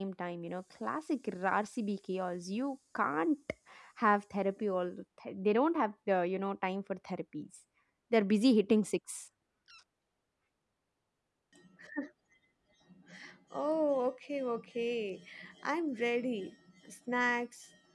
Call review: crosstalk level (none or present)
none